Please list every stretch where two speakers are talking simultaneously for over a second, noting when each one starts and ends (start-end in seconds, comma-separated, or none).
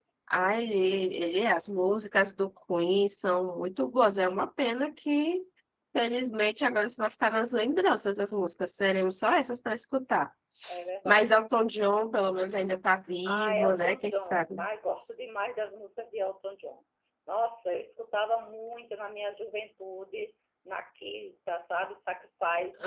13.2-14.6